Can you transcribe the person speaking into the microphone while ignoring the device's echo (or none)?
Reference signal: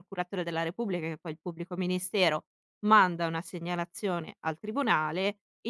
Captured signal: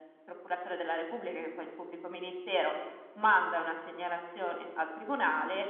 none